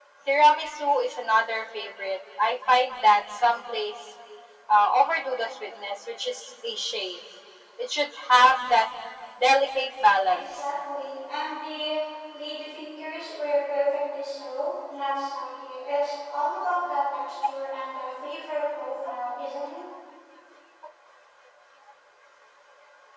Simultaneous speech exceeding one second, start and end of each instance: none

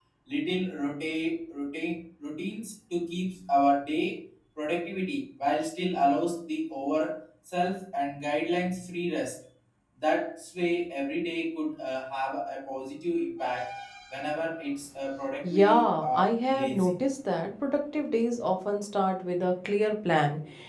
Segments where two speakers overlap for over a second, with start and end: 15.4-16.9

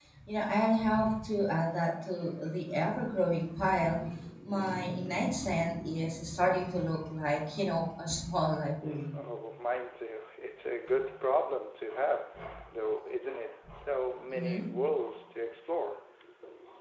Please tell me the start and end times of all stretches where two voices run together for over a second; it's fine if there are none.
none

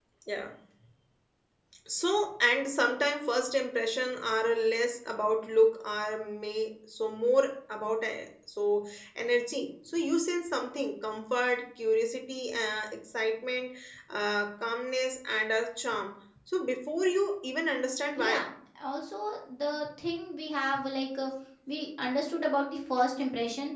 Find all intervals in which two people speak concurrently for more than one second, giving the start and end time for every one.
none

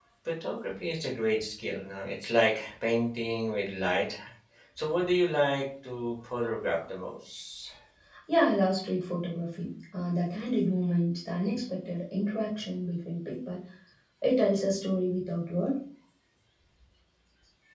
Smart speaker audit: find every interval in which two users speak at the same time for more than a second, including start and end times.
none

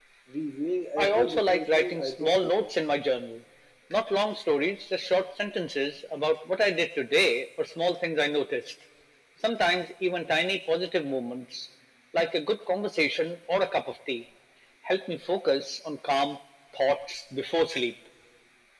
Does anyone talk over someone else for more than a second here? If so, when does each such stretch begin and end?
1.0-2.7

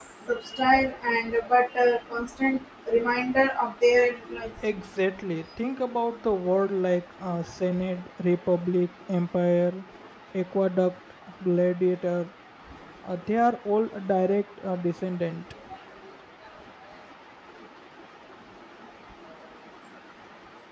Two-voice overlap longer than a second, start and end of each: none

